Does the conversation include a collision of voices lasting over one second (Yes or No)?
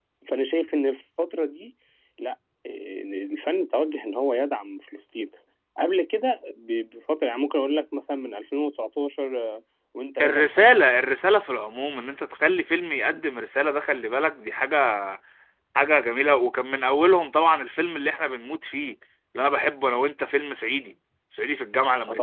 No